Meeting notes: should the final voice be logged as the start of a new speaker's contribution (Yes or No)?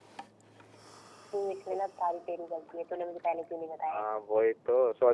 Yes